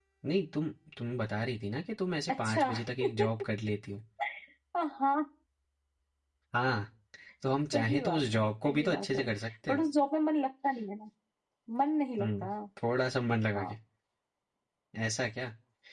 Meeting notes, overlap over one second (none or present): present